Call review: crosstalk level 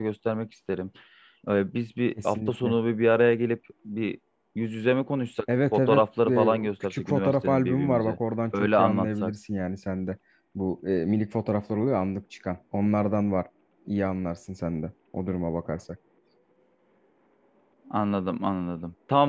present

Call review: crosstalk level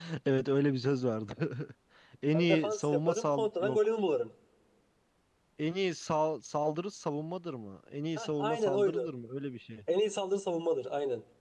present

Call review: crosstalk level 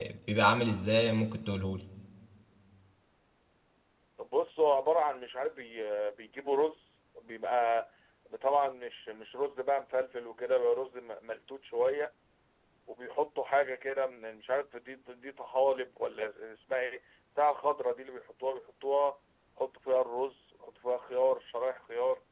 none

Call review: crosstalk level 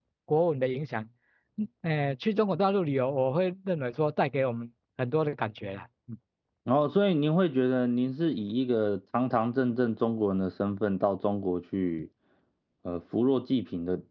none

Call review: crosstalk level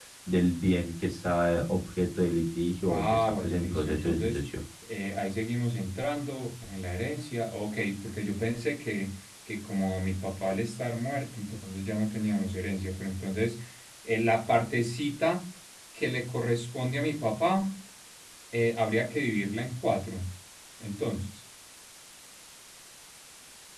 present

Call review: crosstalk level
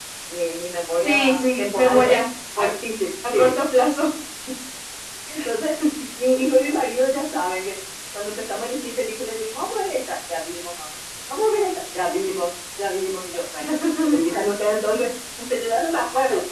present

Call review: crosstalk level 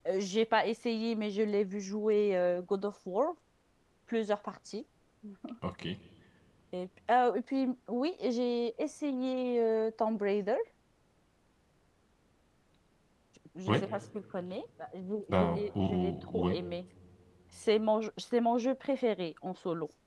present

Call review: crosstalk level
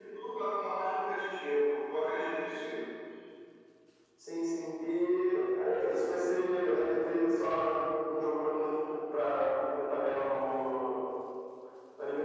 none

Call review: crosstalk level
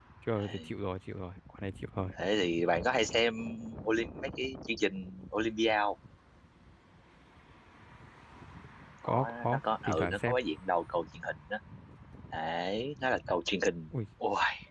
present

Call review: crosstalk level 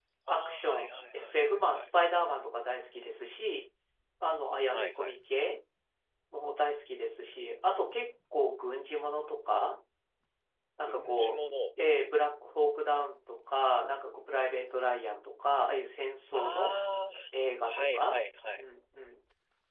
present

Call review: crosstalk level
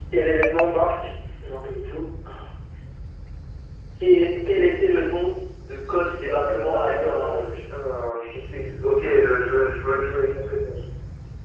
present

